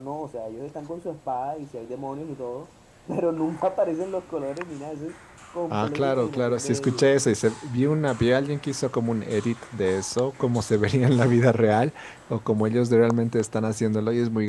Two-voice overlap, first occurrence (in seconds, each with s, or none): 5.7 s